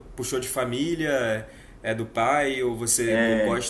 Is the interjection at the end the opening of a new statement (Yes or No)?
No